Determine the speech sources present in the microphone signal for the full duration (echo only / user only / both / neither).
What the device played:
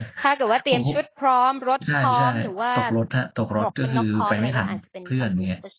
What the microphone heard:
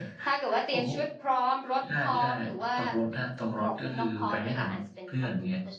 echo only